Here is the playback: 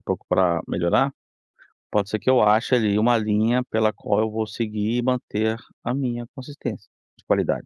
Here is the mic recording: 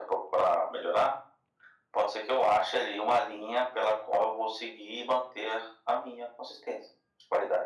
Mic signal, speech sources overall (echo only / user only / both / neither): echo only